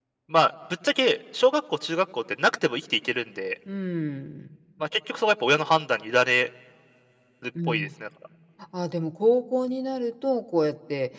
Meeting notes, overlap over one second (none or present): none